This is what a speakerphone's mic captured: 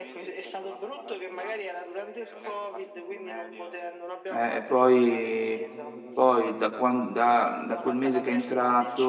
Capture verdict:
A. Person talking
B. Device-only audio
A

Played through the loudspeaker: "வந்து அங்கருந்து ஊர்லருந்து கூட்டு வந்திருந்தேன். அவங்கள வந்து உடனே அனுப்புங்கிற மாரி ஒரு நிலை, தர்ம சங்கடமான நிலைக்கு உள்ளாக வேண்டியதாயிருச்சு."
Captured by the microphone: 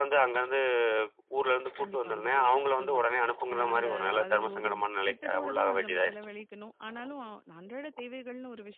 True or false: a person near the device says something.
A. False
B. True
B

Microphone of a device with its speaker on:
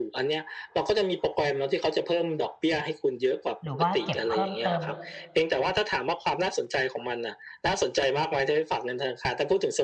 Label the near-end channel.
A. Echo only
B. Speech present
B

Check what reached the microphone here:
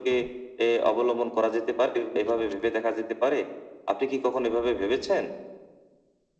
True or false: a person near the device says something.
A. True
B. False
B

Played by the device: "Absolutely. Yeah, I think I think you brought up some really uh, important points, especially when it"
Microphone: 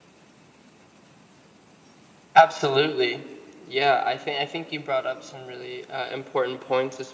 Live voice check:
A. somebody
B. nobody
B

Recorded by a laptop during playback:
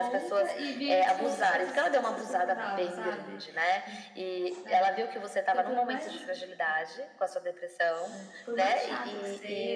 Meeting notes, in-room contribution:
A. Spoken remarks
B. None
A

